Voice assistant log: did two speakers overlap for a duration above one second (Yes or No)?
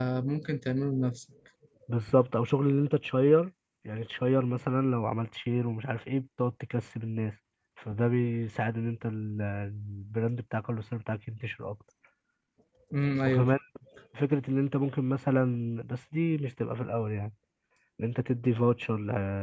No